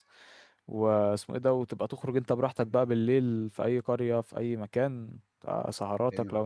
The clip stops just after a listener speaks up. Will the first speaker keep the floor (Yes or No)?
Yes